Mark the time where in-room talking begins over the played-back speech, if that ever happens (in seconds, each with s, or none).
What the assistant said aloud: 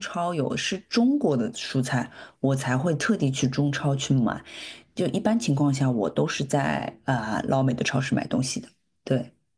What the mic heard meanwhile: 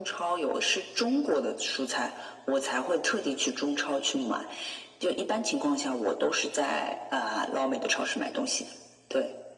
none